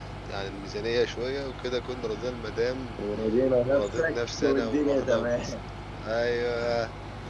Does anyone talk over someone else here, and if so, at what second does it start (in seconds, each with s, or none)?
3.6 s